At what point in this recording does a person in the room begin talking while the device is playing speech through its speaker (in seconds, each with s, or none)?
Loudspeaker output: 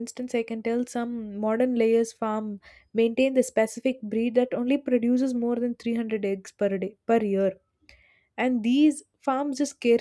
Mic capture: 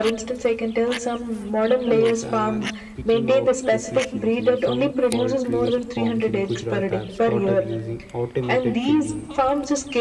1.9 s